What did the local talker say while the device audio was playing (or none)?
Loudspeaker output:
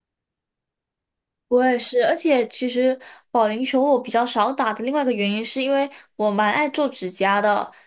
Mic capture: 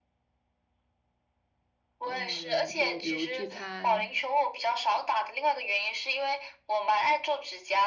嗯，就比如聚餐，